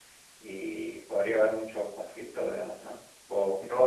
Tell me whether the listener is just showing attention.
No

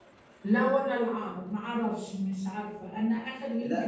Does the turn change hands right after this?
Yes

